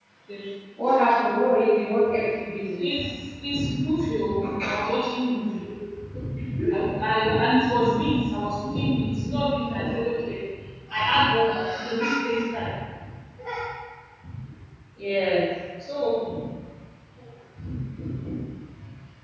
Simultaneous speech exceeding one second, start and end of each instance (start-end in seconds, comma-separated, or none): none